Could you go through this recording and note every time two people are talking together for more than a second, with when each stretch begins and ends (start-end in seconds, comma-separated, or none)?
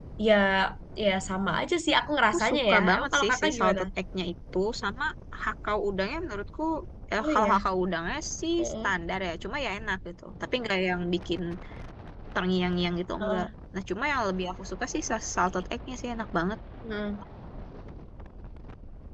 2.3-3.8